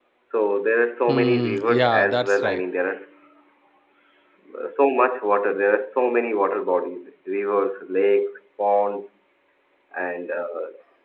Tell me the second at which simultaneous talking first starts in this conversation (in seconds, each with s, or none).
1.1 s